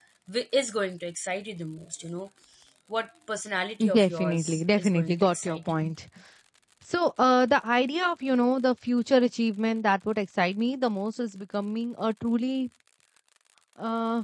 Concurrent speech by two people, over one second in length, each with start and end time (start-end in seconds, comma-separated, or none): 3.9-5.8